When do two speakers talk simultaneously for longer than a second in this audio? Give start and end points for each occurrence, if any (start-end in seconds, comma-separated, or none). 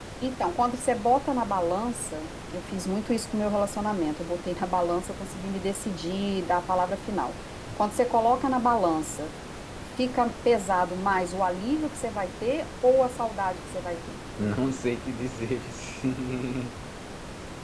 none